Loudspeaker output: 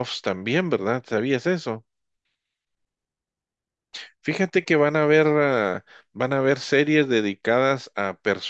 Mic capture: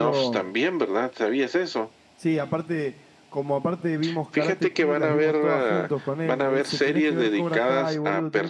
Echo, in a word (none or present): present